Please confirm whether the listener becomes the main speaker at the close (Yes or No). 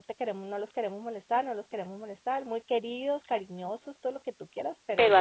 No